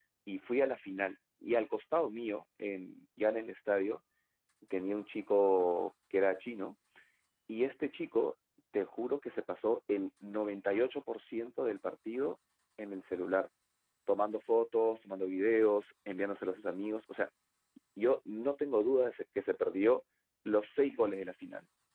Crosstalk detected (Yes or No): No